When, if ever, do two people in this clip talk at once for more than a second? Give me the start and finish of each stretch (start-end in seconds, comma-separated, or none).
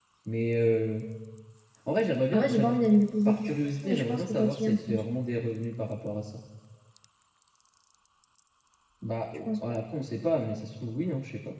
3.2-5.0